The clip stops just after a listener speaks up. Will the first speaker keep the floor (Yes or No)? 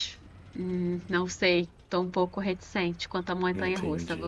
No